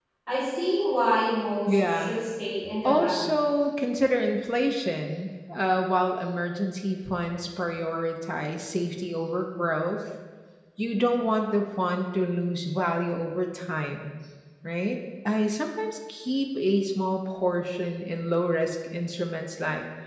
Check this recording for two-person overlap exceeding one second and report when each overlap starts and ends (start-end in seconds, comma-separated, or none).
none